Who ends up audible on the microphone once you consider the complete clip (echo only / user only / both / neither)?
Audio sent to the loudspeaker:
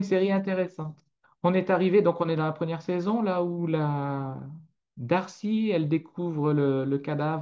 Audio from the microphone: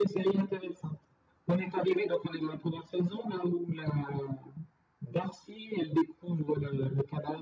echo only